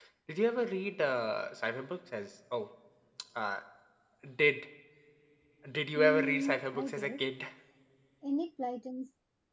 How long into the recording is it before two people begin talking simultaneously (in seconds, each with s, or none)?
6.0 s